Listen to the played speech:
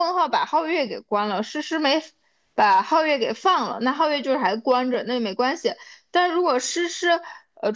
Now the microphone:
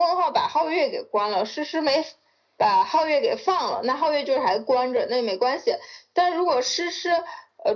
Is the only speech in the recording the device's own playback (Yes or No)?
Yes